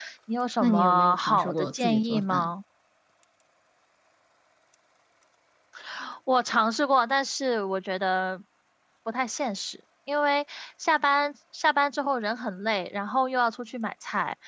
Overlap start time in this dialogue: 0.6 s

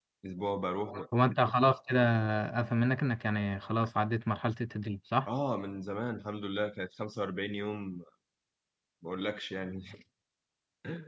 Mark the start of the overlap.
none

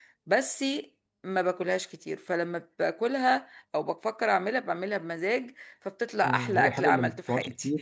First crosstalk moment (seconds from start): 6.2 s

